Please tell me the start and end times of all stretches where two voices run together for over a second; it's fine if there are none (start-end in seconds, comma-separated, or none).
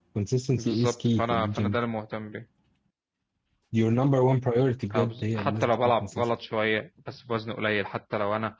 0.5-1.8, 5.0-6.2